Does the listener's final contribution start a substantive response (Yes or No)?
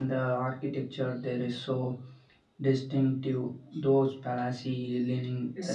Yes